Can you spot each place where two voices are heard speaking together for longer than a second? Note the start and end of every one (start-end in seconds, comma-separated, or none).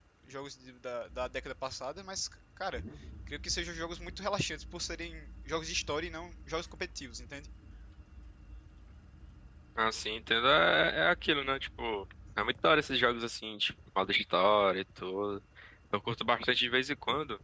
none